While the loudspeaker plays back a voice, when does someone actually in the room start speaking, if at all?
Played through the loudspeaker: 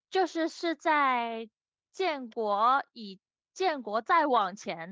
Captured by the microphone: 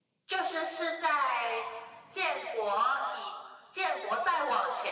none

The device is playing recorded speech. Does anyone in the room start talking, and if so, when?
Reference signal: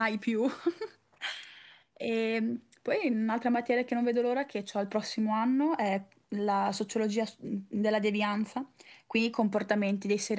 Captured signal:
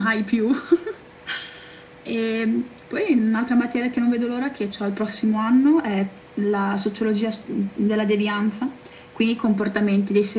none

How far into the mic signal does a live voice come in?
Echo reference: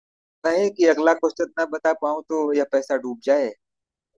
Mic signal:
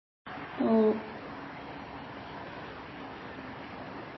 0.6 s

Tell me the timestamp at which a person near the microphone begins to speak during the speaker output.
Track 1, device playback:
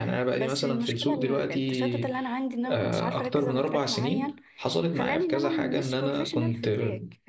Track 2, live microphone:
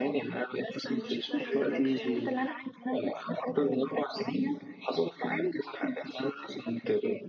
0.8 s

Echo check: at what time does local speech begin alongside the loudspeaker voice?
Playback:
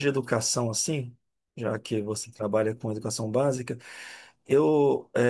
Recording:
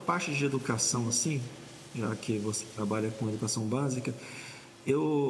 0.9 s

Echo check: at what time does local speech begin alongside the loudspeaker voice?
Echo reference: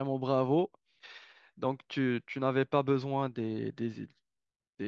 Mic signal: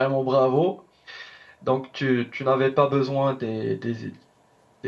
none

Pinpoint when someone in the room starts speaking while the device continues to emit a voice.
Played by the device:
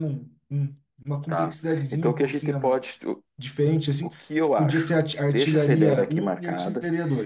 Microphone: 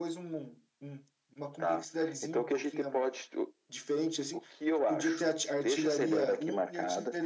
none

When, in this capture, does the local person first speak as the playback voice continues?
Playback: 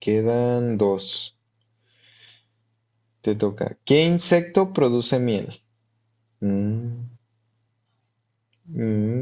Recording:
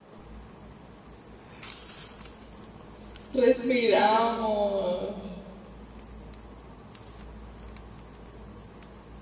3.3 s

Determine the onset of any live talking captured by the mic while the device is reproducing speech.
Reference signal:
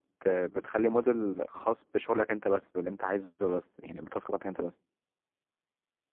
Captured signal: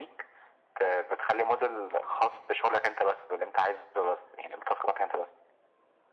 none

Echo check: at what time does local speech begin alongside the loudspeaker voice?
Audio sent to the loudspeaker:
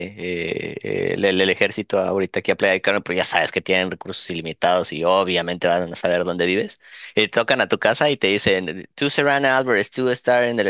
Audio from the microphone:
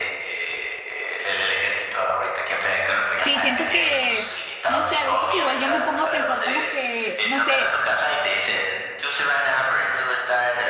3.2 s

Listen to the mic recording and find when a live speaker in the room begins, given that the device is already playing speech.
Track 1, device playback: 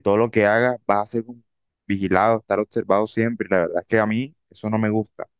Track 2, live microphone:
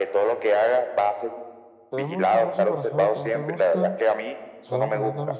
1.9 s

